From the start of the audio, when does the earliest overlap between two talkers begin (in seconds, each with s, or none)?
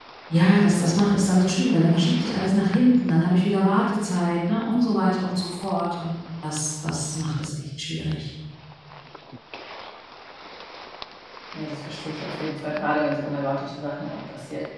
none